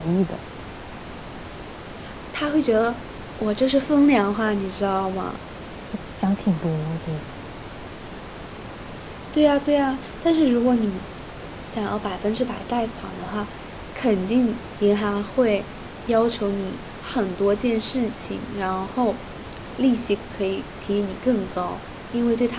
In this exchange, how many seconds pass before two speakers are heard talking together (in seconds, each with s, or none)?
none